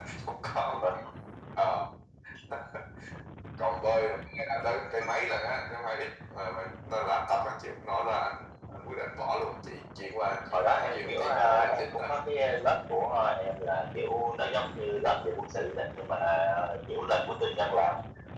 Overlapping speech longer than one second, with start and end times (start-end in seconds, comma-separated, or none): 10.5-12.1